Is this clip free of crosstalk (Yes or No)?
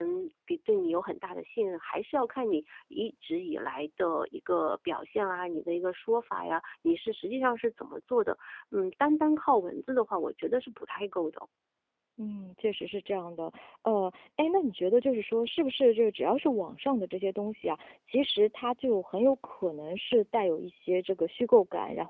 Yes